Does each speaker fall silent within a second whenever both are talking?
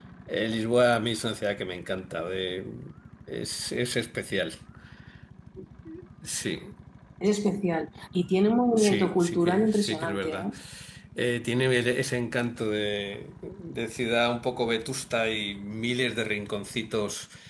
No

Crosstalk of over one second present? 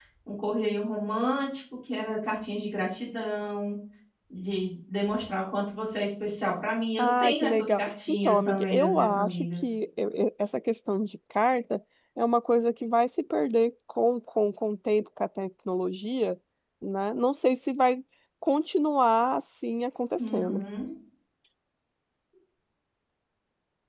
Yes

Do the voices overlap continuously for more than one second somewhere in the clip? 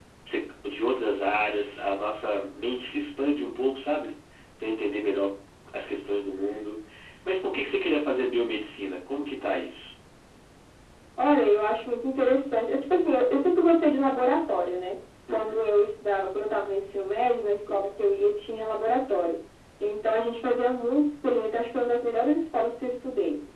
No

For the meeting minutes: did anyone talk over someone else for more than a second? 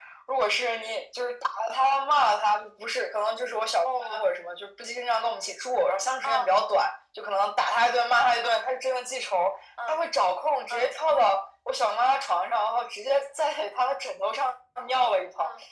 No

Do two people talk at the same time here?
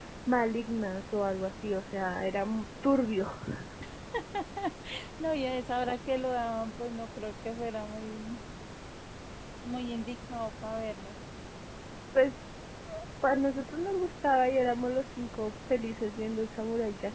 No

